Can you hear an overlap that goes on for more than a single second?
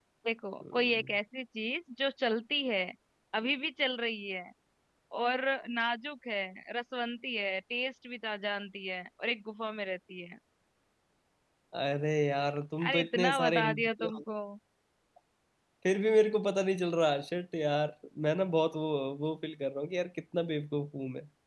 Yes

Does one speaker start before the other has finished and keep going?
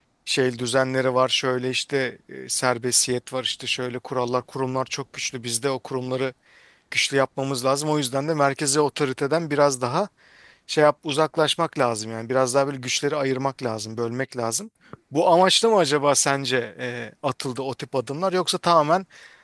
No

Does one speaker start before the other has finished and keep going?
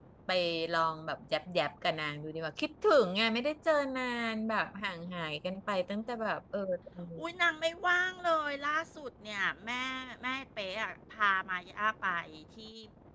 No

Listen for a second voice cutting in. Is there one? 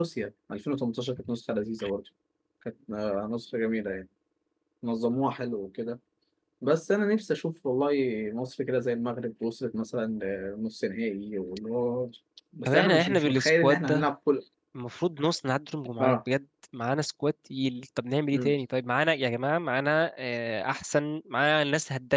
Yes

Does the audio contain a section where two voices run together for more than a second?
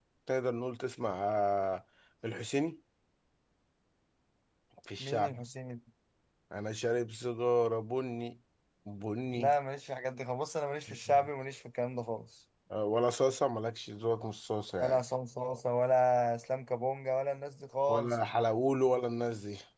No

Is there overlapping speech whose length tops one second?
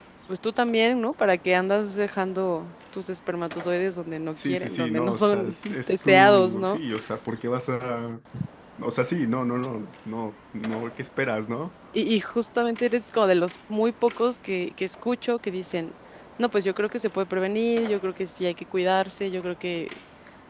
Yes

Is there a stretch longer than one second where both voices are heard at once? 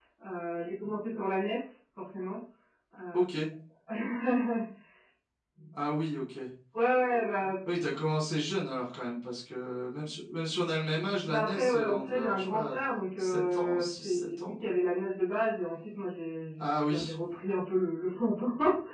Yes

